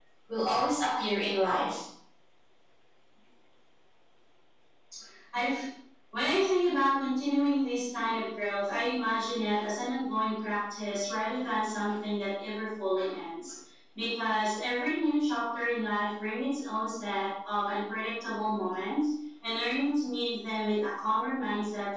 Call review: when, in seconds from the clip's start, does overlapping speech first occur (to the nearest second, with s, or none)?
none